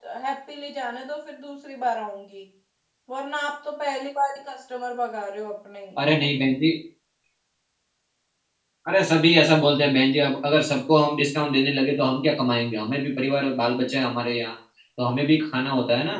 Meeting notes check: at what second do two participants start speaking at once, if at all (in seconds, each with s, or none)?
none